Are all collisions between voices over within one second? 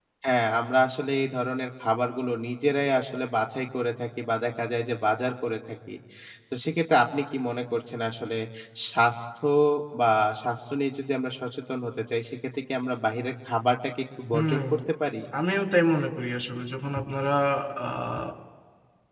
Yes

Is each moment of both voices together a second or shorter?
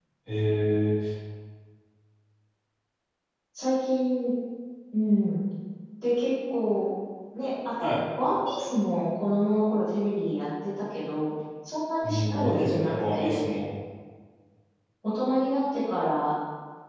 No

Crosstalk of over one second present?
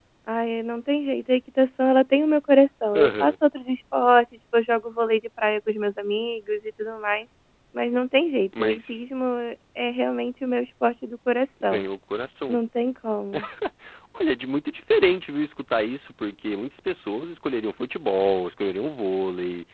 No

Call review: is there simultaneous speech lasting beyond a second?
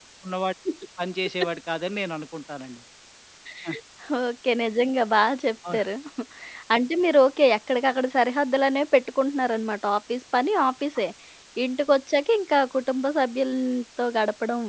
No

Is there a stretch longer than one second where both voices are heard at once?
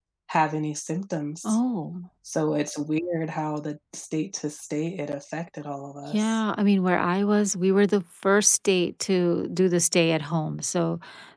No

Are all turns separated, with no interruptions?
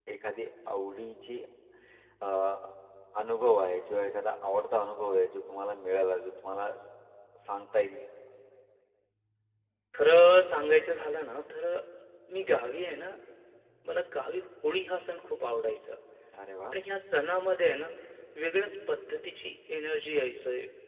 Yes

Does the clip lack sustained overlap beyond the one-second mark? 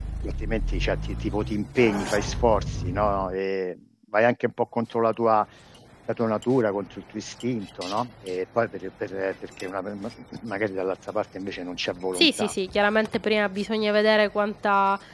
Yes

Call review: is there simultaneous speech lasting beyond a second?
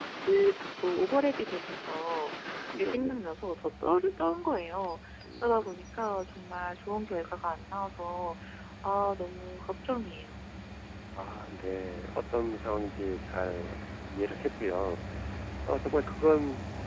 No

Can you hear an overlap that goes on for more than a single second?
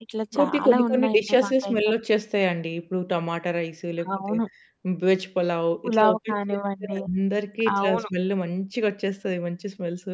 Yes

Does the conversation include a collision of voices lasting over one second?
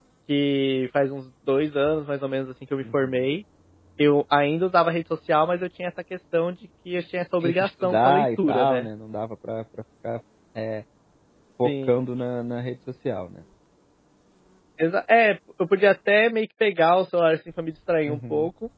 Yes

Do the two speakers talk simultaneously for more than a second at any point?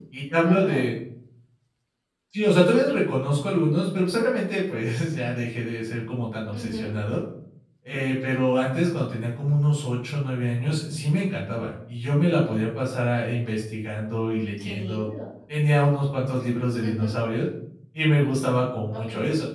No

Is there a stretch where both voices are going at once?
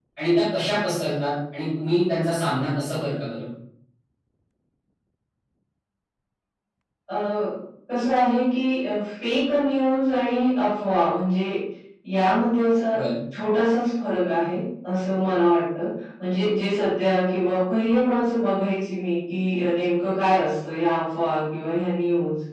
No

